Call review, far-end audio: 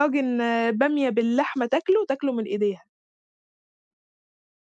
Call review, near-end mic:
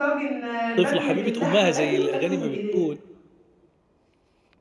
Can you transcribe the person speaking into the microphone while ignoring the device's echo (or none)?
طفلة حبيبة أُمّها، زي الأغاني ما بتقول.